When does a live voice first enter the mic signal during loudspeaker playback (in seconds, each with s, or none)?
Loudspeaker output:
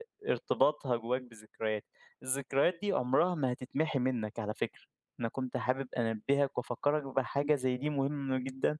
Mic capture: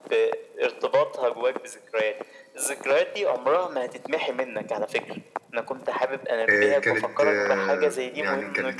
6.5 s